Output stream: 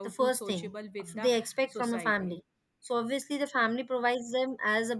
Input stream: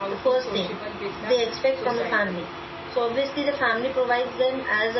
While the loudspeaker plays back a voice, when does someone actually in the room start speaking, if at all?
none

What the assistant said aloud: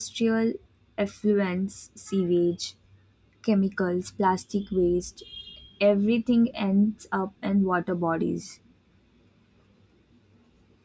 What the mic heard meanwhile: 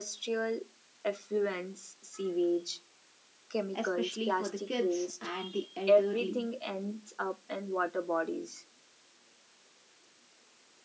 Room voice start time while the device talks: 3.7 s

